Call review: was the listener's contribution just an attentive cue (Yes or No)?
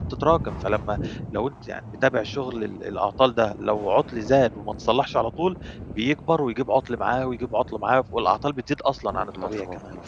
No